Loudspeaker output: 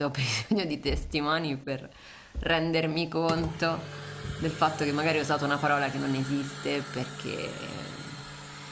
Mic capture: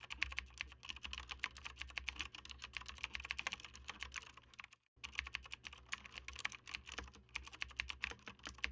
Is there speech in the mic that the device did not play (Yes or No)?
No